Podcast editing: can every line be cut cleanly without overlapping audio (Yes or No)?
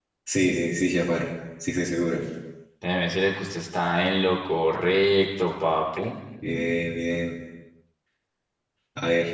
Yes